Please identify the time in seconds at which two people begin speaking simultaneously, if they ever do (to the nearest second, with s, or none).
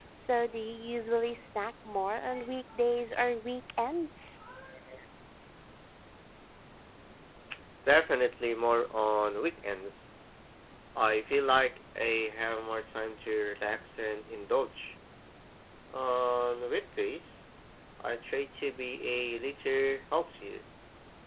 none